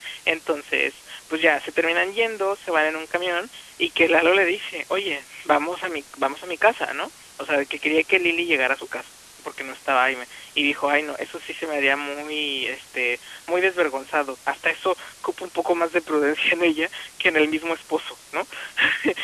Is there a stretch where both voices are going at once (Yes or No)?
No